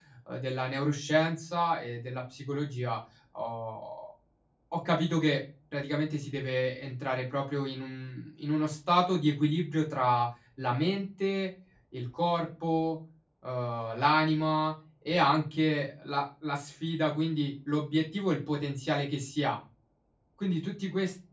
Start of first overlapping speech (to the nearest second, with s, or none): none